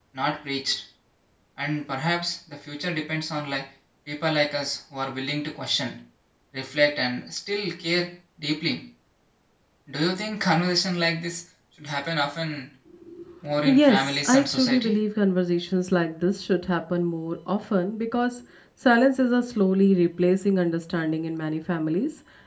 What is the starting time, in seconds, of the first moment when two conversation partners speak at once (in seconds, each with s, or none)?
13.7 s